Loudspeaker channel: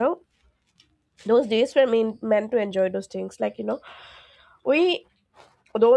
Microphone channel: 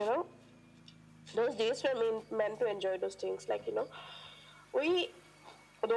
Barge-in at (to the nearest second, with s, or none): none